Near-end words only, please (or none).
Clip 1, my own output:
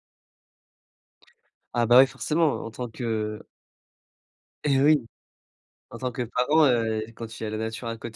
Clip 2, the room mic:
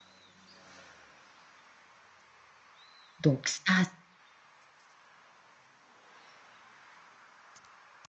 Donc ça